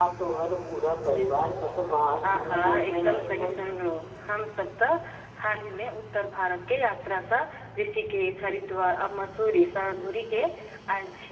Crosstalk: present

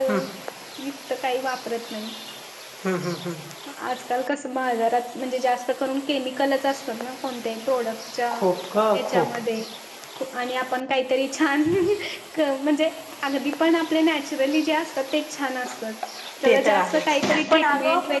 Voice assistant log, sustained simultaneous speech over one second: present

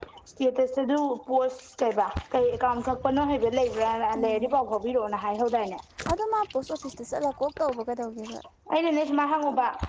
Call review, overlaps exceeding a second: none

